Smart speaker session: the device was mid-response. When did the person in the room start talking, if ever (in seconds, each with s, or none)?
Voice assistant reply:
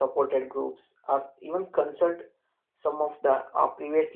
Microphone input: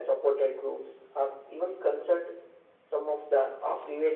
none